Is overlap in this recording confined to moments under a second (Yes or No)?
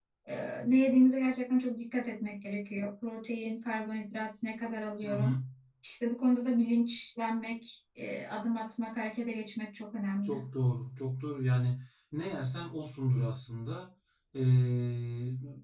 Yes